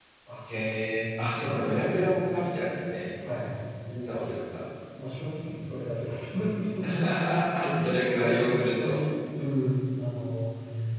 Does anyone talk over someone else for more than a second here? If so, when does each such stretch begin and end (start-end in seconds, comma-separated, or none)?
7.8-9.0